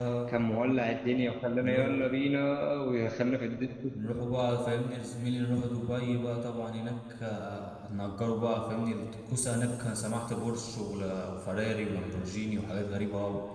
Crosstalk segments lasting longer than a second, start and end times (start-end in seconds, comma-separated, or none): none